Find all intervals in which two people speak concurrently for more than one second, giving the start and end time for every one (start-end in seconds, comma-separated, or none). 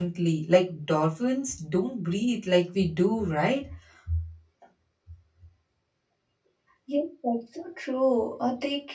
none